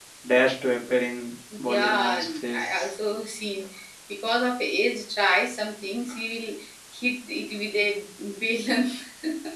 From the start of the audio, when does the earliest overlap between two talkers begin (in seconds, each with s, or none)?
1.5 s